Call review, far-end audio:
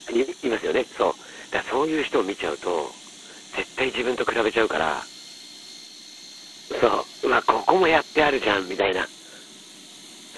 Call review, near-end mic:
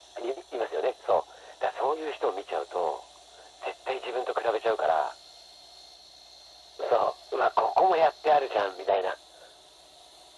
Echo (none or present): present